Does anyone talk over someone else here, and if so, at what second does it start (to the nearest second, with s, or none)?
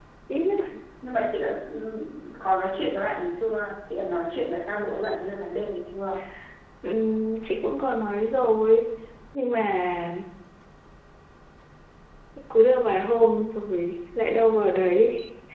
none